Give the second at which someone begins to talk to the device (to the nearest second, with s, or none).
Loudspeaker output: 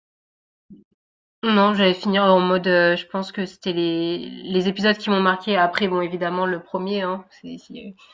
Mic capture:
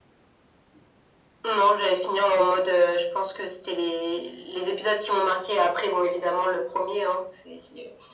none